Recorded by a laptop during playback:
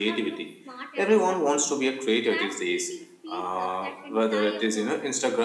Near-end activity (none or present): present